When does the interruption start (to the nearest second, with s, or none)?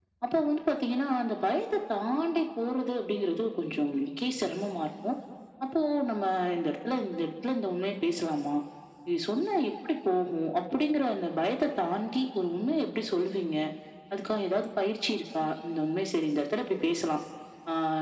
none